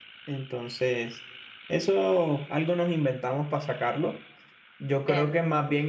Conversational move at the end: listening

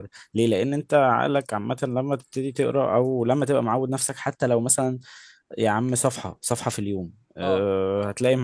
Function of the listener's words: listening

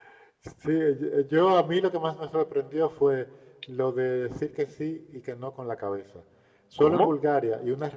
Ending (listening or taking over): listening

